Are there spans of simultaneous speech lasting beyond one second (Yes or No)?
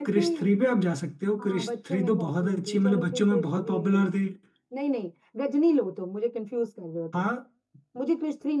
Yes